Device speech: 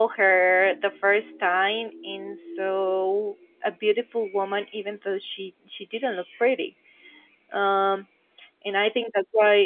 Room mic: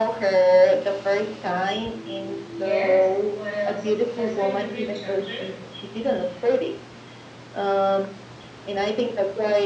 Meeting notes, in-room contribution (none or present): present